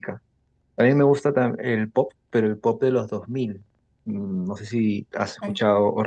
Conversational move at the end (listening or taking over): listening